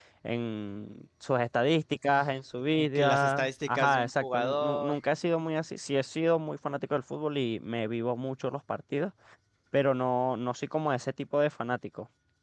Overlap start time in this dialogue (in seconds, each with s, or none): 2.8 s